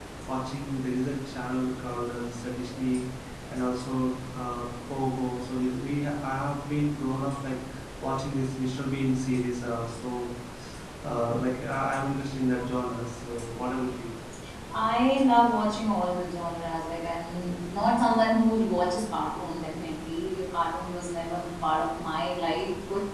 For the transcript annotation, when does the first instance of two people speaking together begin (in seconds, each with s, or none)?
none